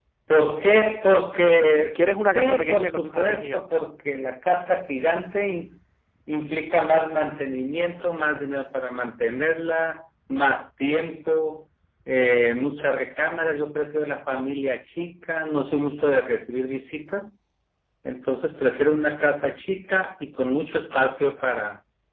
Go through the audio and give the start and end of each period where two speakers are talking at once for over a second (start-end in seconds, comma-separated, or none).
1.9-3.7